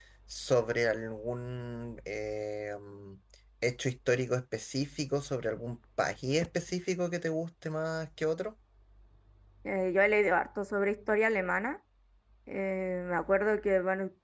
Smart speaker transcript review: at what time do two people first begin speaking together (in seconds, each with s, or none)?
none